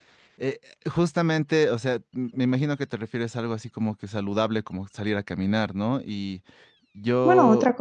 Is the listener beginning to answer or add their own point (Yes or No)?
Yes